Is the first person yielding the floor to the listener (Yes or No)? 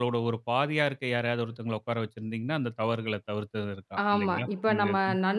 Yes